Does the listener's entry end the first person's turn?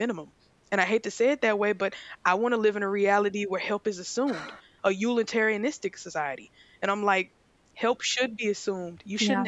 No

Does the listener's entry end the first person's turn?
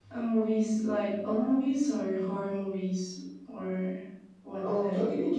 Yes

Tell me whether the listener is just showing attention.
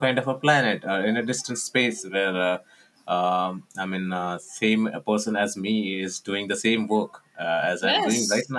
No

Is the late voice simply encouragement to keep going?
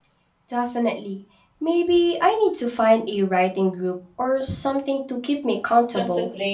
No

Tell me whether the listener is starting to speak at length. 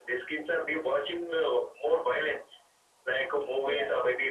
No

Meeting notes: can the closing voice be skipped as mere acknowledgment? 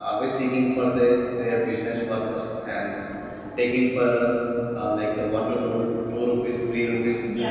No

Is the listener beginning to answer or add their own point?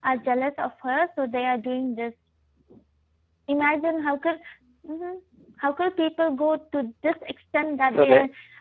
No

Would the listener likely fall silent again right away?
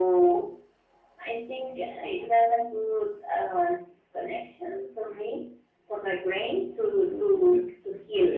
No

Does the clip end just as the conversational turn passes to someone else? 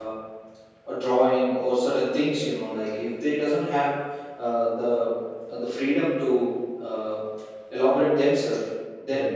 No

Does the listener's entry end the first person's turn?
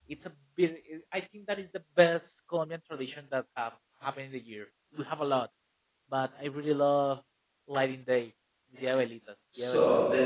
Yes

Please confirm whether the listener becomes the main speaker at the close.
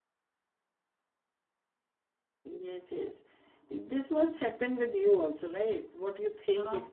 Yes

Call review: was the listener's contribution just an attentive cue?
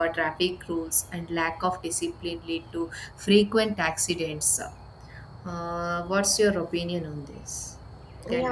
No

